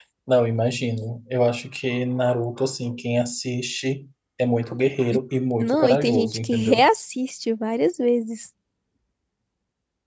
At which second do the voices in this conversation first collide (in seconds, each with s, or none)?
5.6 s